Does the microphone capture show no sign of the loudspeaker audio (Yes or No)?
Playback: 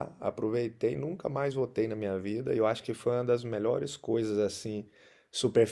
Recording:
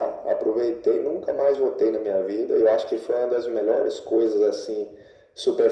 No